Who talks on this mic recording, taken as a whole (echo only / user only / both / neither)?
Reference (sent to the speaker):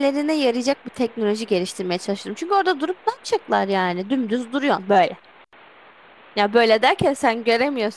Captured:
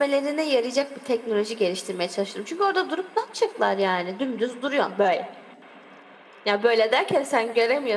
echo only